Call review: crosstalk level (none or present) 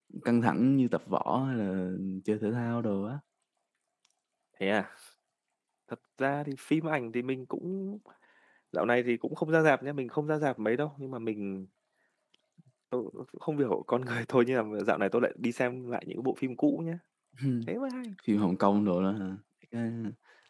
none